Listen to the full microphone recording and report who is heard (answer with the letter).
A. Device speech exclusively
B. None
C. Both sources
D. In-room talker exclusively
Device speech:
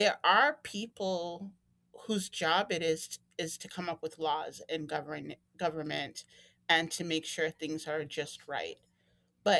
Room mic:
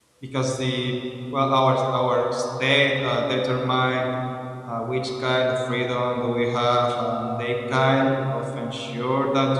D